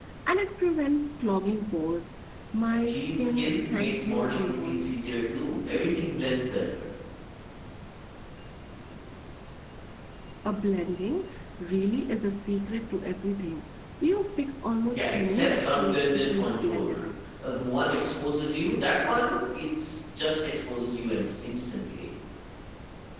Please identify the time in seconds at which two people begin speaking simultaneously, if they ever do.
2.9 s

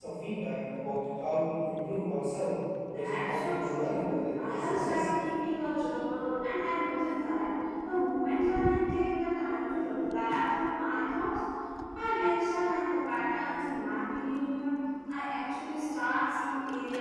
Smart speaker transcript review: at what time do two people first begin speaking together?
2.9 s

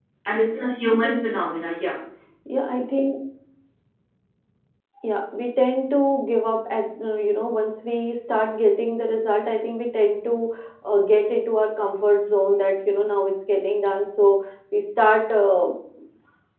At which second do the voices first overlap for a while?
none

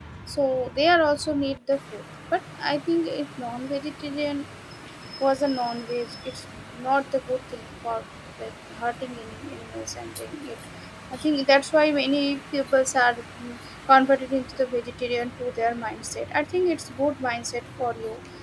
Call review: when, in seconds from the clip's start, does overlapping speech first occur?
none

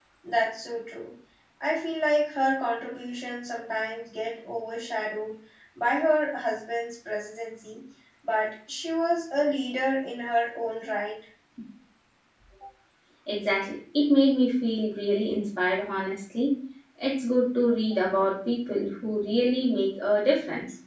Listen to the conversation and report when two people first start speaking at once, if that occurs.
none

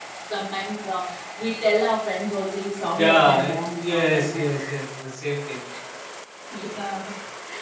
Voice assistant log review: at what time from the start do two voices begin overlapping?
2.9 s

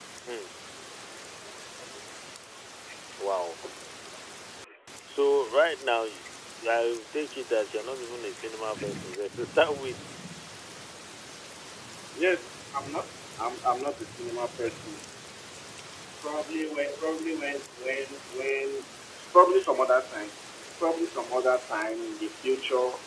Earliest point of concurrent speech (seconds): none

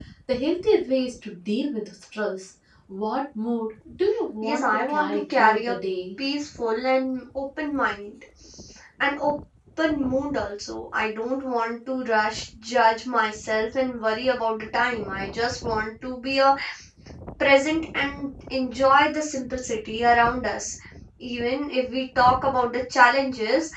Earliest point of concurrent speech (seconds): 4.4 s

